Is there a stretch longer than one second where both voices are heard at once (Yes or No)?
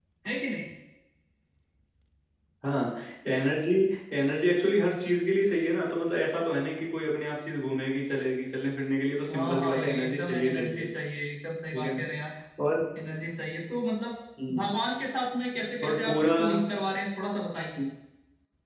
Yes